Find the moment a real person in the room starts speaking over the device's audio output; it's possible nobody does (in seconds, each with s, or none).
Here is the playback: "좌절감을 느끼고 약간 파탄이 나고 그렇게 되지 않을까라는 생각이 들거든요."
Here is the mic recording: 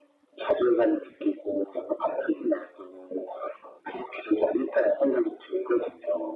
none